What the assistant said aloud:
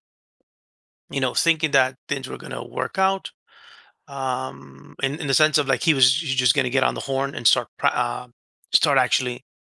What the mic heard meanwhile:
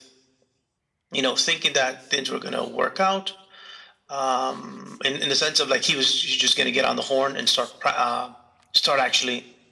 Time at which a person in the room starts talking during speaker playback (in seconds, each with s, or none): none